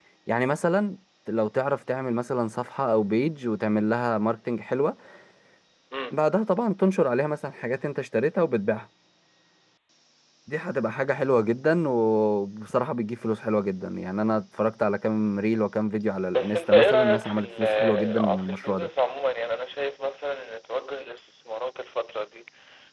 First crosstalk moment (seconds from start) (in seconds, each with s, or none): 16.3 s